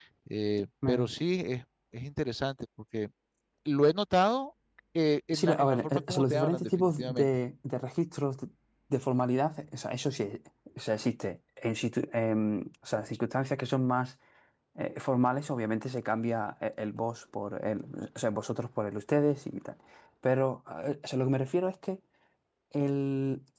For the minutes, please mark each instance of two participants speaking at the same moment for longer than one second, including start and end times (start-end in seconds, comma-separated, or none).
5.3-7.3